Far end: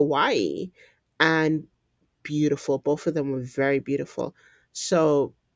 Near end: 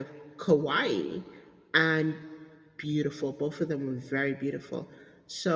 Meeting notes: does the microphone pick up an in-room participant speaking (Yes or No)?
No